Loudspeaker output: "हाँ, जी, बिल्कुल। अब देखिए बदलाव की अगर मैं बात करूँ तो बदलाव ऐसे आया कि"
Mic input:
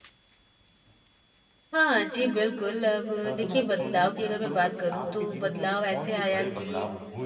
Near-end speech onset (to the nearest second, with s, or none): 3 s